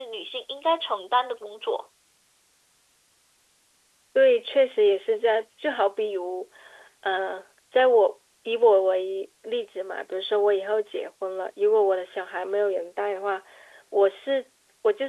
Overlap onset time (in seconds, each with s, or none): none